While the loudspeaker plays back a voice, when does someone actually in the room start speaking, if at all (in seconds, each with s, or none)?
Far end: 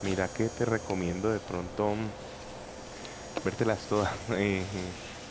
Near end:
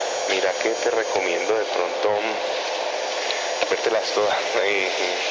none